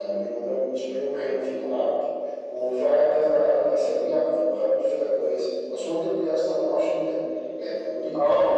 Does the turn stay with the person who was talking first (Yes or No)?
Yes